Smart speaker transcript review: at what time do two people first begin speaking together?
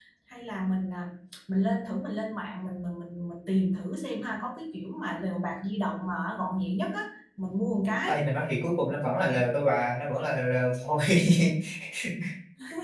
none

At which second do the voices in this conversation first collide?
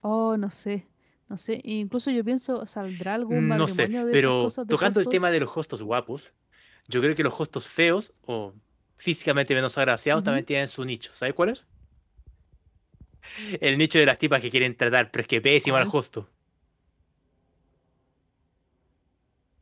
3.3 s

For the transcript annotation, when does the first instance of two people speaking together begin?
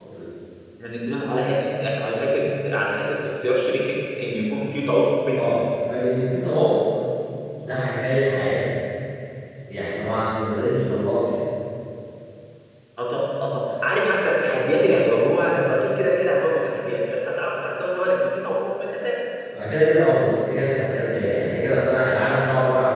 none

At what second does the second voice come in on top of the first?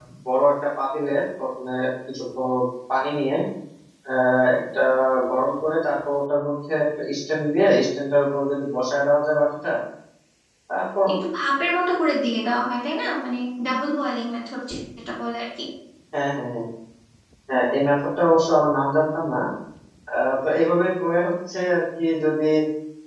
none

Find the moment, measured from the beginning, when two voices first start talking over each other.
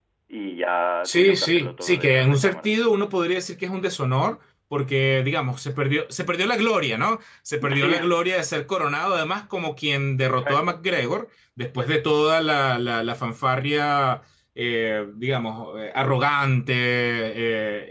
1.1 s

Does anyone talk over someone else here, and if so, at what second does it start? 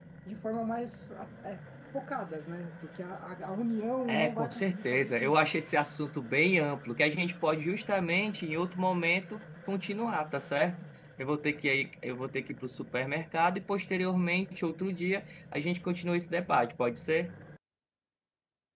4.1 s

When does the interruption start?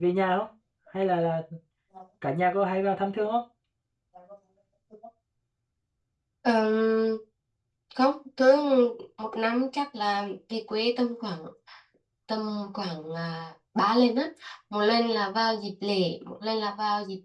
none

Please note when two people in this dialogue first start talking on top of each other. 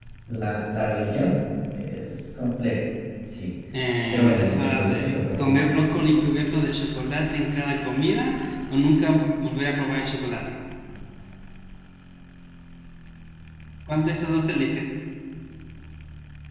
4.1 s

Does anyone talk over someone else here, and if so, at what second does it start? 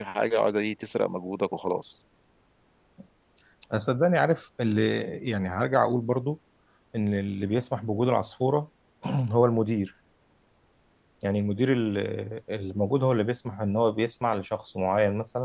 none

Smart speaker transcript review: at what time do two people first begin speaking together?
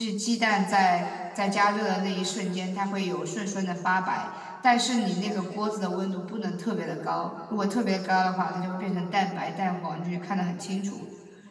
none

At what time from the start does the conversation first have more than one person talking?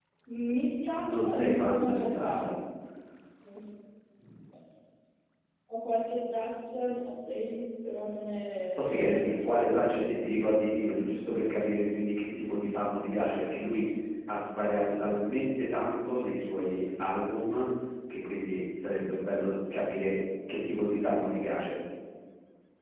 1.0 s

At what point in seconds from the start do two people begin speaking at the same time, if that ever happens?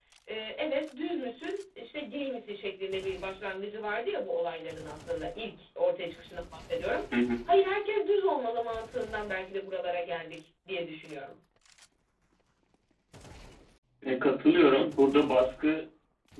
none

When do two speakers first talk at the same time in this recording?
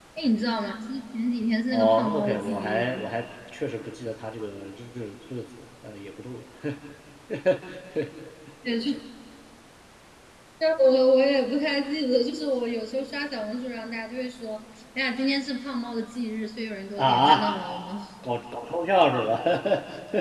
1.7 s

